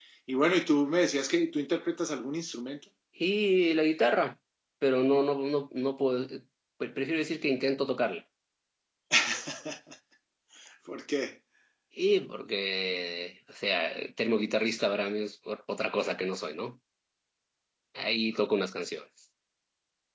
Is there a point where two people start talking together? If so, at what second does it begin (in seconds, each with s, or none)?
none